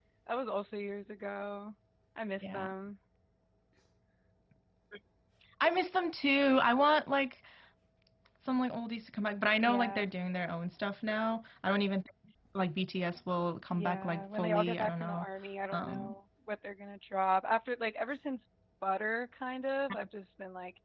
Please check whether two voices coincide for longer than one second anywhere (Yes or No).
Yes